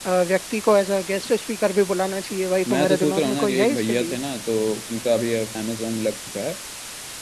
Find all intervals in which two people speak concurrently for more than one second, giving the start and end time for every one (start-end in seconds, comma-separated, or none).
2.7-4.2